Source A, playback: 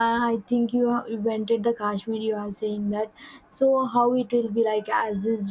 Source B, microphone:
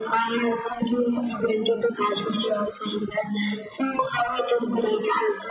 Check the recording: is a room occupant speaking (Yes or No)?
No